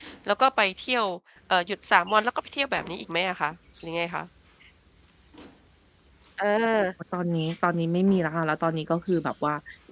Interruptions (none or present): none